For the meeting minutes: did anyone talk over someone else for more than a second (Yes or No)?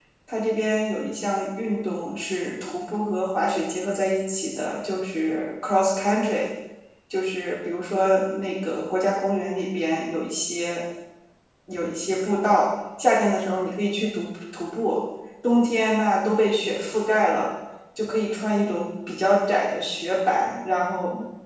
No